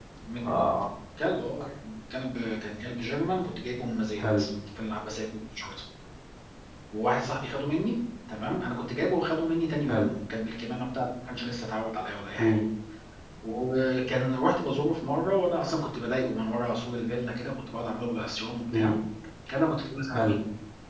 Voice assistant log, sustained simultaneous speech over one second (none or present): none